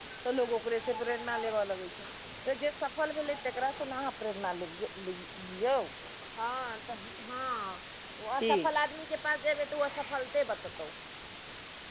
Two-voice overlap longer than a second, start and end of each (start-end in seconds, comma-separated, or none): none